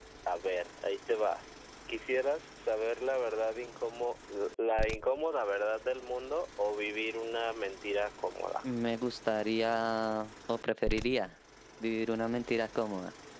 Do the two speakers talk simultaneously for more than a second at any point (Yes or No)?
No